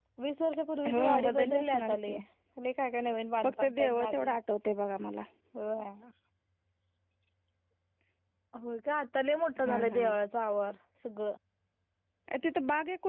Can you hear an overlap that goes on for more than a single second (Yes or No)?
Yes